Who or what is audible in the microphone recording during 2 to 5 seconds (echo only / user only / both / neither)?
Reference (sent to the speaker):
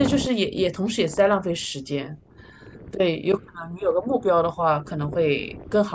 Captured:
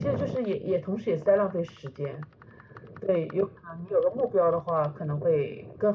echo only